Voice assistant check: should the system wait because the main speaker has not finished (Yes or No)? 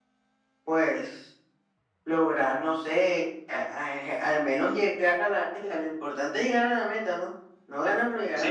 No